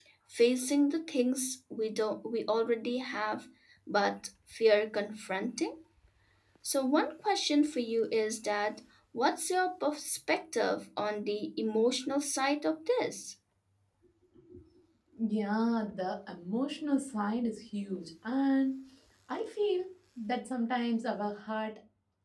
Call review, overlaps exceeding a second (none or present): none